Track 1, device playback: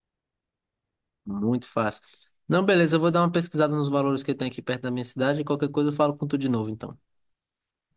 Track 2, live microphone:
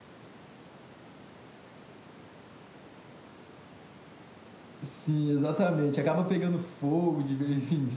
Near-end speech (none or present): present